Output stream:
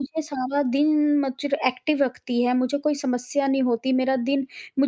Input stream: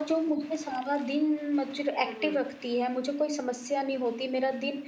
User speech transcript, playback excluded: हुँ, हुँ।

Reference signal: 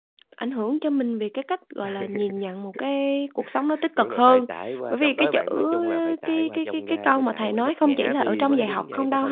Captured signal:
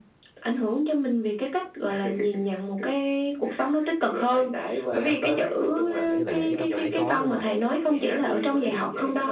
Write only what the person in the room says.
Phải có, những cái lời nhận xét đó phải có, đúng hông bạn?

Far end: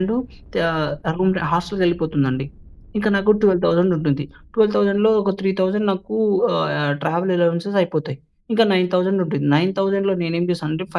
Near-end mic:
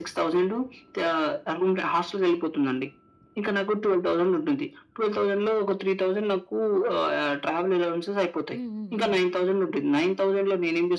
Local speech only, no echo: హ్మ్. హ్మ్. హ్మ్.

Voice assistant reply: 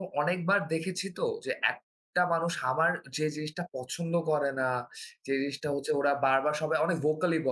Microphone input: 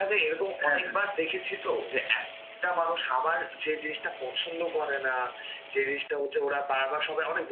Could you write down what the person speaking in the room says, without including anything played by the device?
হ্যাঁ, হ্যাঁ,

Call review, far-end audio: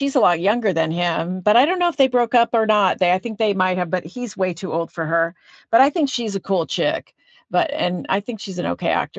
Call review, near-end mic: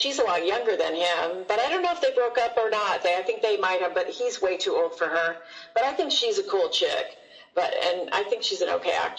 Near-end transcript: none

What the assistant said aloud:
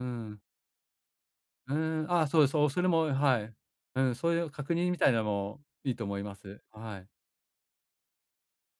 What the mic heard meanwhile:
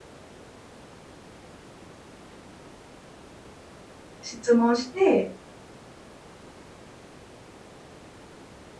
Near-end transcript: 質問して

